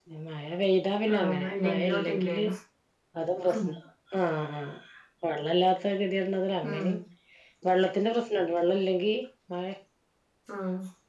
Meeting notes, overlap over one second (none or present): present